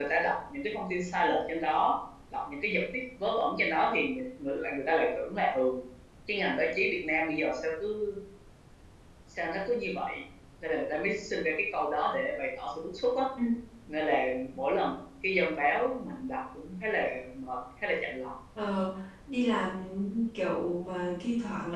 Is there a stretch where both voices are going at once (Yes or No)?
No